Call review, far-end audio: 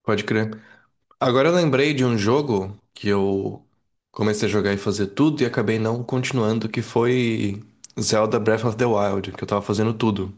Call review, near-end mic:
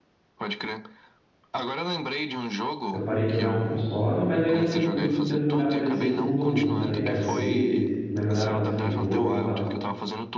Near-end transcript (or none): Eu parei de jogar no console, mas ainda no futuro eu pretendo jogar no PC, porque mudou muito, né? Tem DLC, melhoraram bastante o jogo e tal.